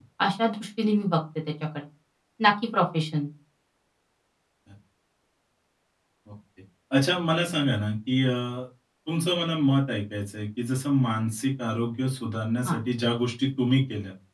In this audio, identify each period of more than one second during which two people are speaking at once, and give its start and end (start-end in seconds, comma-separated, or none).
none